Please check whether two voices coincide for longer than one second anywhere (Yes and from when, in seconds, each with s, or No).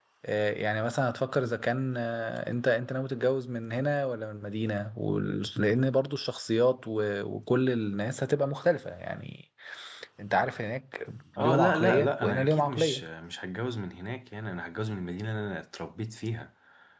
Yes, from 11.4 s